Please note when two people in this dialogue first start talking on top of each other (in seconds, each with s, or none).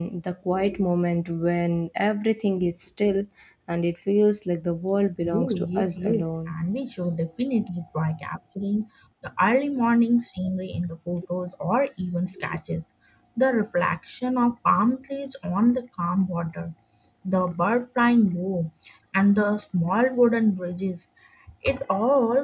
5.2 s